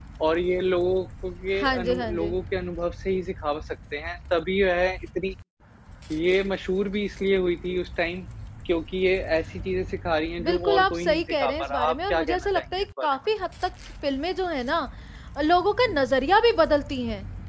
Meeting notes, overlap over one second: present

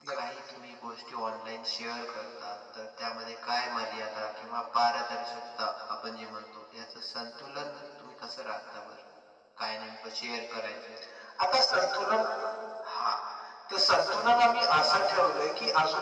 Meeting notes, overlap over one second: none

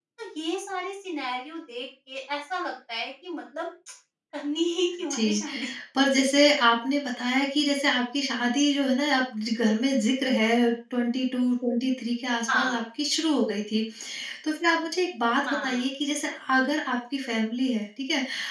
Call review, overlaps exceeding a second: none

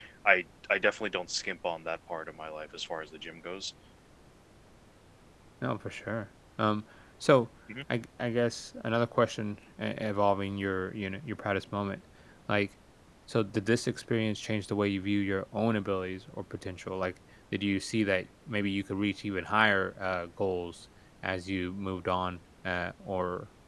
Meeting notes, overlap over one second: none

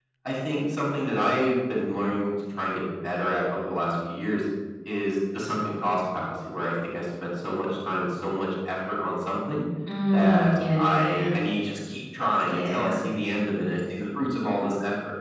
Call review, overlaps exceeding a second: present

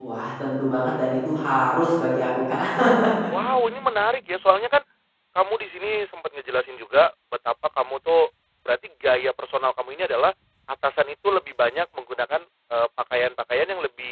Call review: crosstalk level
none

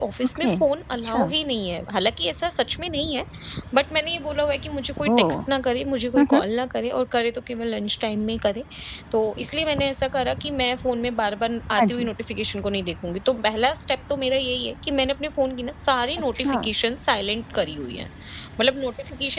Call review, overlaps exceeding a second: none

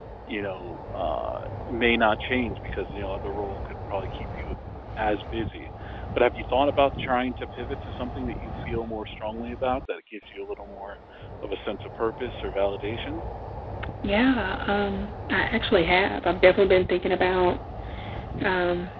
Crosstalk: none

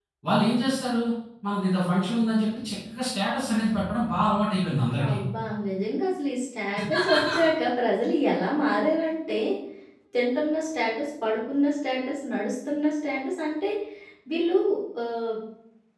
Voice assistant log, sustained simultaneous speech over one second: none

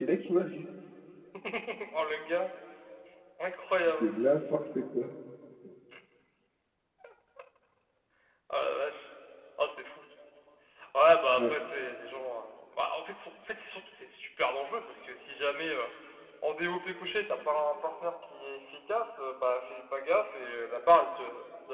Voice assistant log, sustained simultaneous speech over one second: none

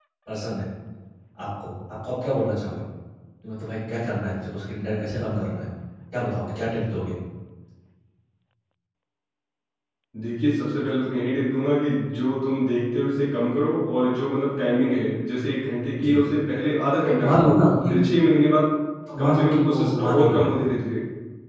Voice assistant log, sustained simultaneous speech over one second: present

